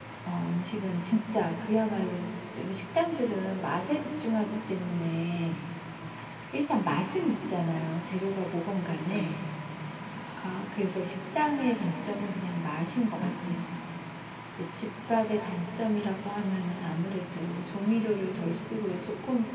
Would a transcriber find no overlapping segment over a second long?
Yes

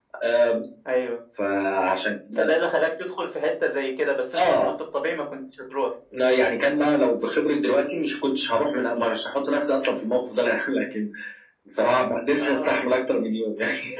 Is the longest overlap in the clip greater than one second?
No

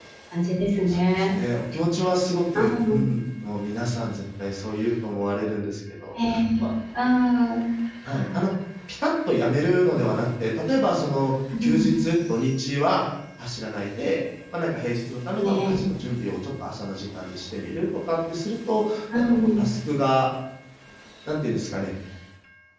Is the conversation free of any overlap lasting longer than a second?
Yes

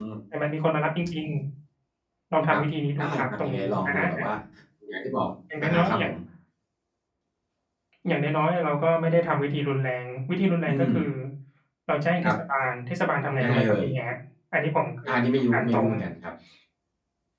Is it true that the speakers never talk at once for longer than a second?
No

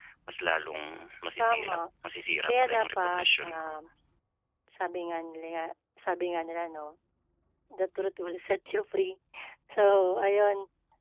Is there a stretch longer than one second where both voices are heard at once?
Yes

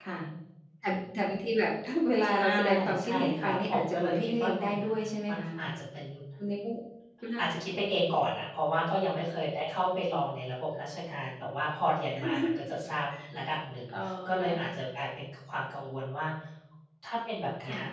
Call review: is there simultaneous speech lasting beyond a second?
Yes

